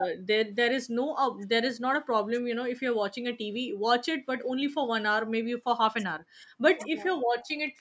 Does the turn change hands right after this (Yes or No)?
No